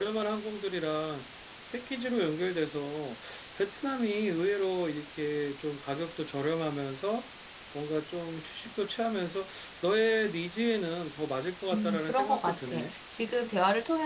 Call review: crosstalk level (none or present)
present